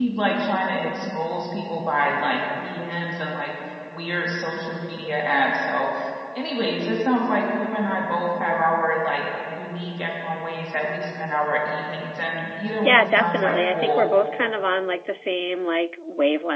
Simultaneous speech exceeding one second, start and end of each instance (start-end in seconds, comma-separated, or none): 12.8-14.0